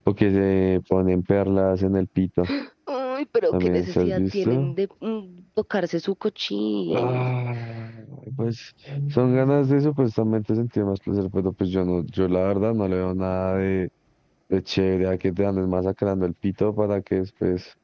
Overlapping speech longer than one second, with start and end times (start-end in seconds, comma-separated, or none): 3.5-4.7